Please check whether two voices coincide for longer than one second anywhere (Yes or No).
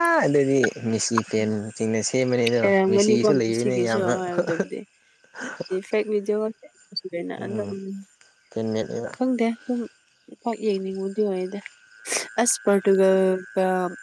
Yes